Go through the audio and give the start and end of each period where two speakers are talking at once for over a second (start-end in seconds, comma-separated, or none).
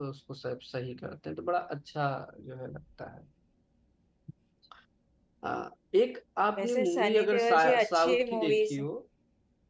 6.6-8.8